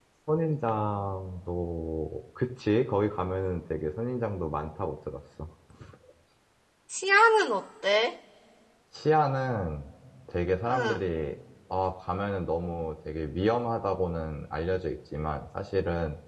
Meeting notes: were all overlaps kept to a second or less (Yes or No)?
Yes